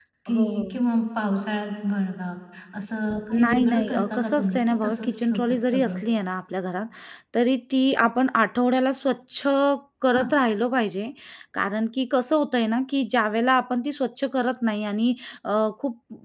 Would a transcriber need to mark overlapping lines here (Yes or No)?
Yes